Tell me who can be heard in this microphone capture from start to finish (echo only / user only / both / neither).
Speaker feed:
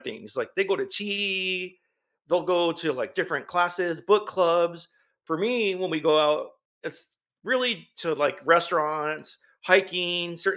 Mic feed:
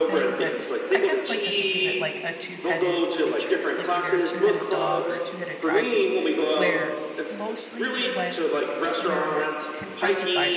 both